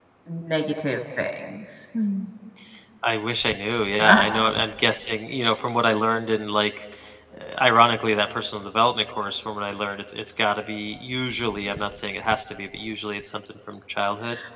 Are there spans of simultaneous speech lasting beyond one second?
No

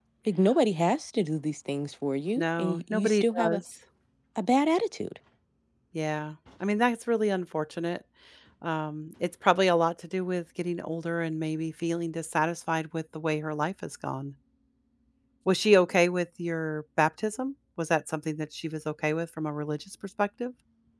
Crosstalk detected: Yes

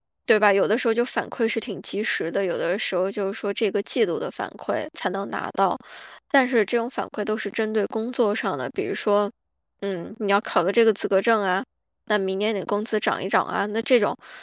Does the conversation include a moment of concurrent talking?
No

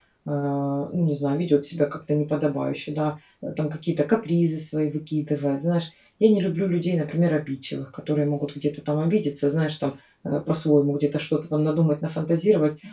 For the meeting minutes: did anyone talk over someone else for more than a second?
No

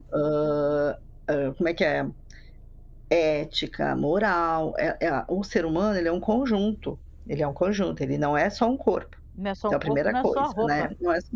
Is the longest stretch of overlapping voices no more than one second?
No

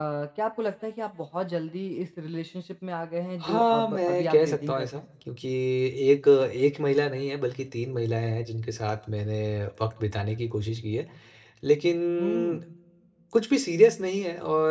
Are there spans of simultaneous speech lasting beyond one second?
Yes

